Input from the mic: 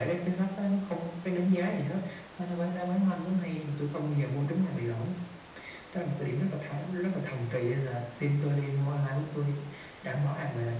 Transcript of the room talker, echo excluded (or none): none